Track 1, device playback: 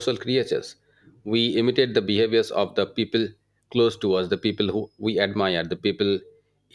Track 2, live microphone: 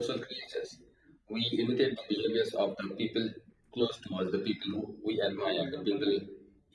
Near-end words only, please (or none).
put example like